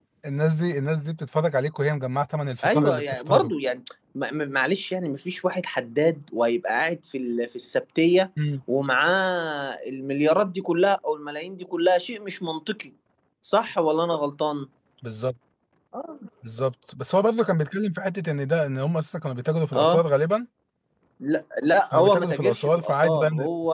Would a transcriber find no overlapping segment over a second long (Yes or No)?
No